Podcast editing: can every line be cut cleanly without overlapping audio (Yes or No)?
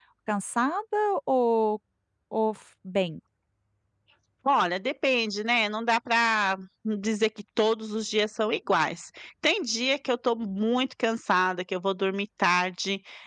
Yes